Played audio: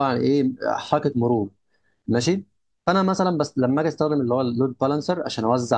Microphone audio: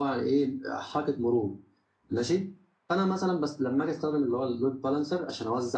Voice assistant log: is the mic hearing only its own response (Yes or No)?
Yes